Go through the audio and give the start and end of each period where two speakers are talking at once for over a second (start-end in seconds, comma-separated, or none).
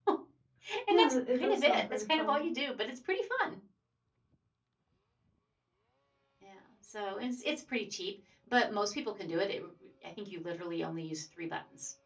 0.9-2.4